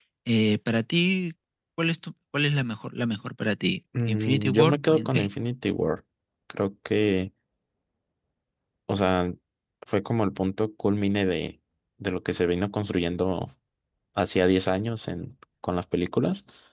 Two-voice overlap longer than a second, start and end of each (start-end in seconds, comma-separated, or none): 4.1-5.3